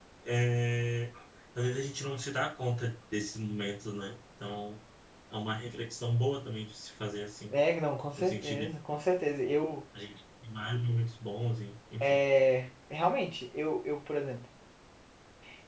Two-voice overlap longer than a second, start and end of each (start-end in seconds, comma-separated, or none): none